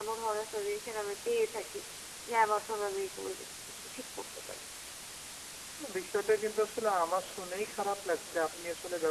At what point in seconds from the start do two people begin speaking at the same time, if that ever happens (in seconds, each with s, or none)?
none